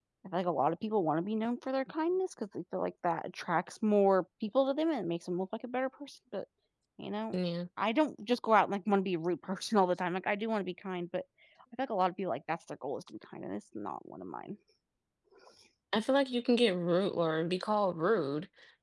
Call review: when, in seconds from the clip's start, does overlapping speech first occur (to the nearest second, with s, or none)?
none